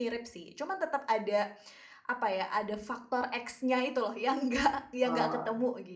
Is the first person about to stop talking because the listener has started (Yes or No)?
No